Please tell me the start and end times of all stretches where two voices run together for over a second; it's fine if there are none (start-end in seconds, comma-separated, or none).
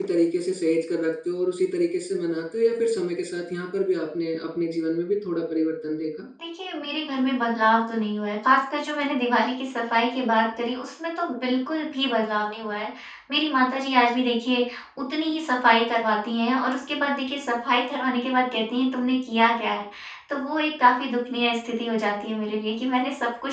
none